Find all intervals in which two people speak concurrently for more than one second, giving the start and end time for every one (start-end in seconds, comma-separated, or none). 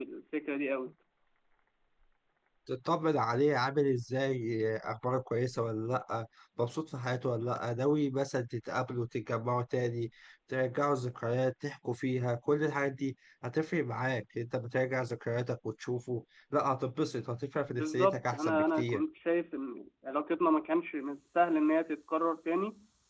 17.7-19.0